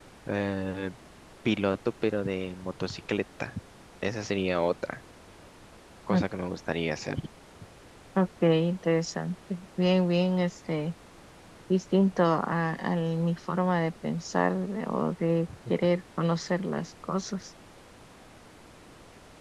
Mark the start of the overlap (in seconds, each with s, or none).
none